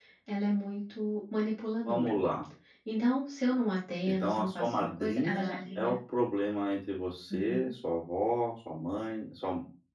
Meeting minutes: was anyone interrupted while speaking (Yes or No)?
Yes